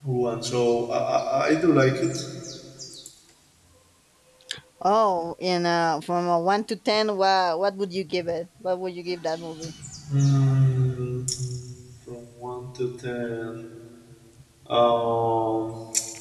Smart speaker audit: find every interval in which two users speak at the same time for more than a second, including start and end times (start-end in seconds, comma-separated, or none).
none